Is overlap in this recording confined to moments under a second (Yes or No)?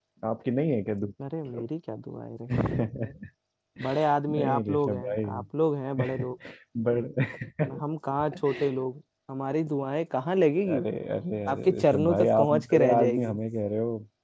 No